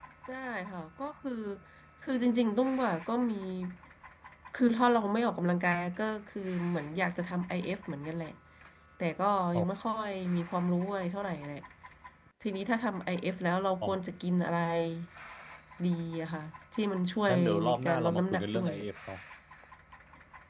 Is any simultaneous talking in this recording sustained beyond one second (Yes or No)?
Yes